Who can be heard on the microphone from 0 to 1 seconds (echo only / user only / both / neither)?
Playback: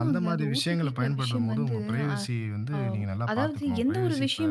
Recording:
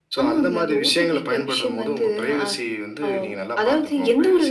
echo only